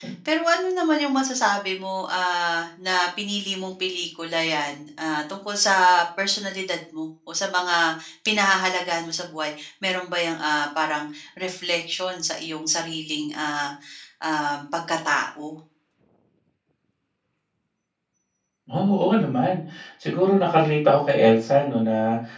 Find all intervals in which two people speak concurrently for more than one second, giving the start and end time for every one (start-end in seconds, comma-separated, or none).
none